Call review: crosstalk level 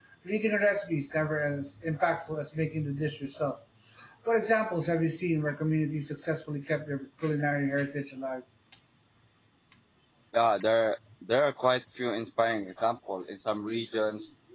none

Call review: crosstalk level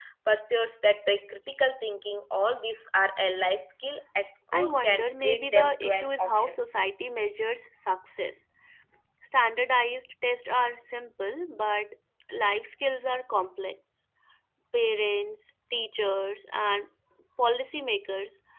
present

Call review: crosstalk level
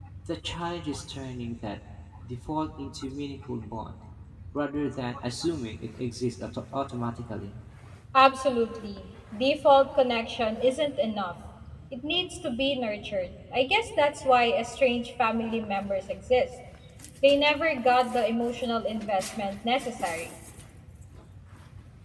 none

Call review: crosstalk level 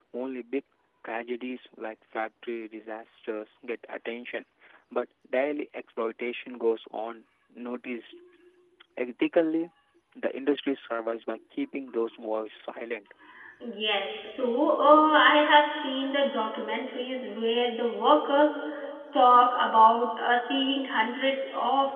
none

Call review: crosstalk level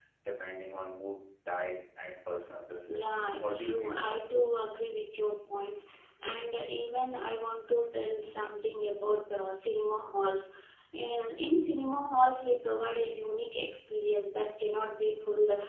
present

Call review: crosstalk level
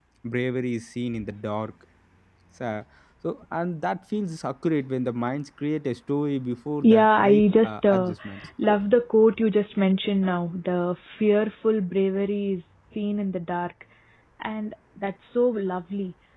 present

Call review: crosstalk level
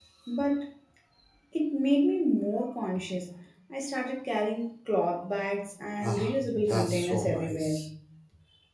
present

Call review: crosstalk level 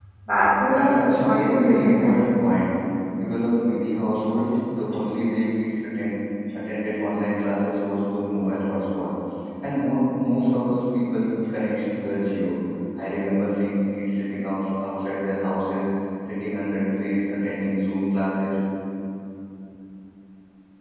present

